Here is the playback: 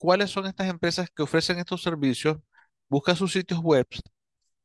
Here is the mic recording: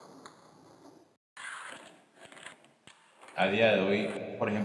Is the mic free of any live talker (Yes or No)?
No